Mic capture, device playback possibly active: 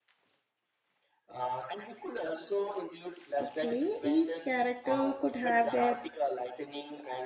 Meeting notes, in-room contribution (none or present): present